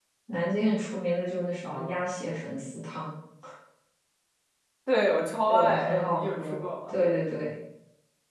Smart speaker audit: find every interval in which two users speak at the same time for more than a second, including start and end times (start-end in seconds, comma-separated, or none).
5.5-6.9